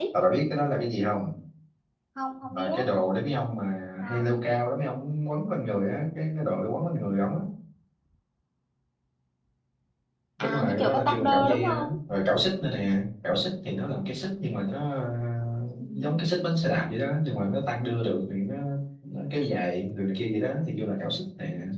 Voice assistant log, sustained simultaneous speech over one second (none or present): present